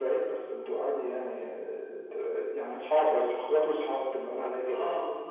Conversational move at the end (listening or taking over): taking over